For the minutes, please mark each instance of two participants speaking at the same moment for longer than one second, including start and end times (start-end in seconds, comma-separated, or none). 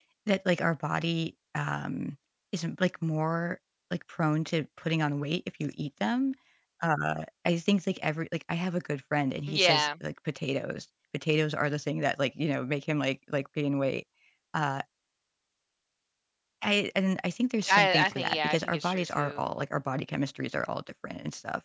17.7-19.4